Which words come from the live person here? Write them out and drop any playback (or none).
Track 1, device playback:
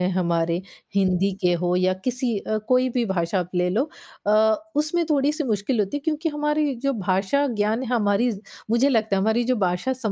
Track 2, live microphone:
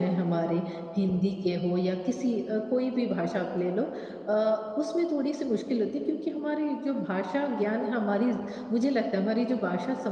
none